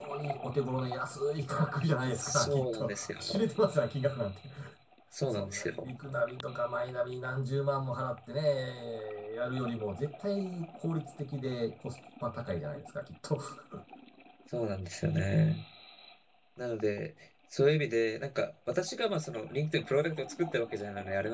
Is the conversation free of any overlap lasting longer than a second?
No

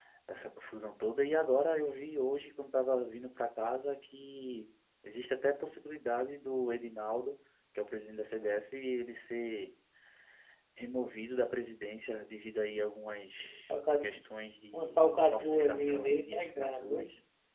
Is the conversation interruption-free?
No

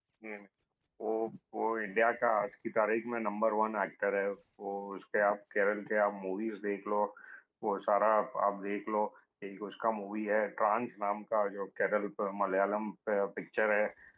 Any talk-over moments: No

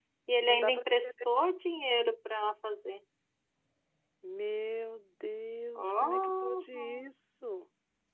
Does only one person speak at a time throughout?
No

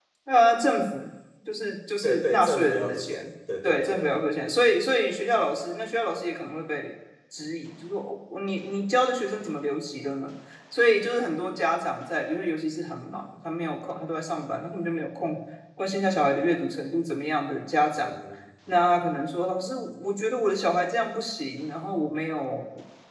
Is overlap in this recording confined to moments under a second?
No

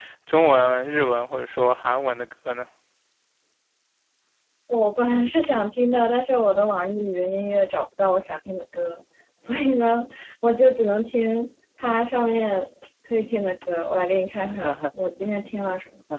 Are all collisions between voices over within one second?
Yes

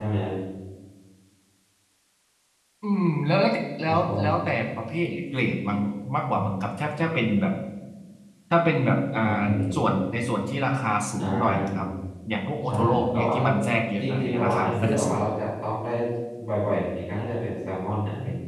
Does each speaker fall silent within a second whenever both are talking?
No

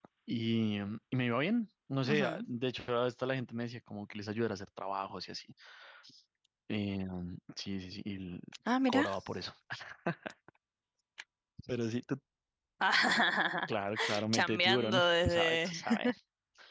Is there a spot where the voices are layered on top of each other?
Yes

